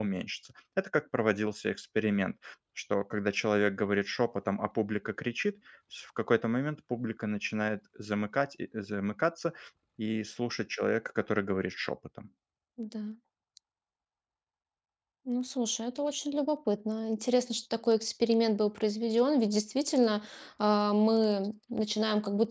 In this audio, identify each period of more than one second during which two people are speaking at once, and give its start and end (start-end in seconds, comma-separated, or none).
none